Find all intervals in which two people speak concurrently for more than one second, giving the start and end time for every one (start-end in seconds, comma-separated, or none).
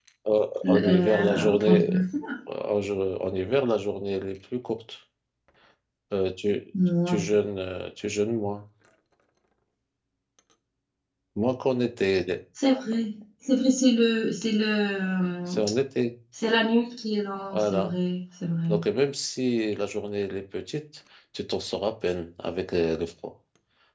0.7-1.9